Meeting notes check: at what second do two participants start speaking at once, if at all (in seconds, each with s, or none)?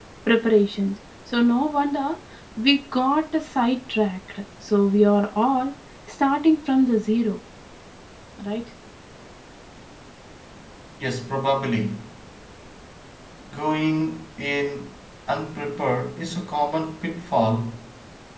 none